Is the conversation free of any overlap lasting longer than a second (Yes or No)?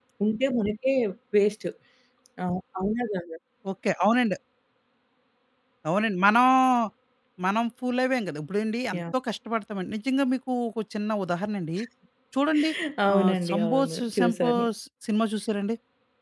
No